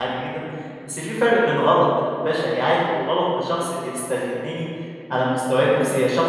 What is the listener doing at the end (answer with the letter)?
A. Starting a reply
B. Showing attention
B